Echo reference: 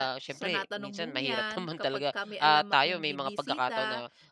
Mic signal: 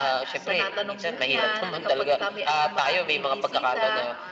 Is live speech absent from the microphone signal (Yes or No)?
No